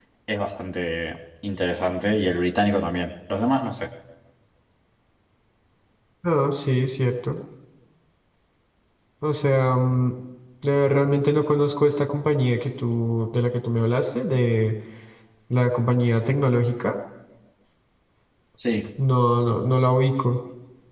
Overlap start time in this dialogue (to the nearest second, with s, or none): none